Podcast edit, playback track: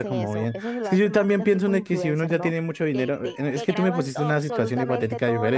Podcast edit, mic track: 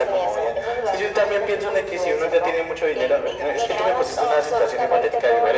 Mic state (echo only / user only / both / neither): echo only